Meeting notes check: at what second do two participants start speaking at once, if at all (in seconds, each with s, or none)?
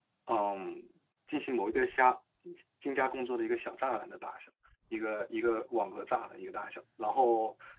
none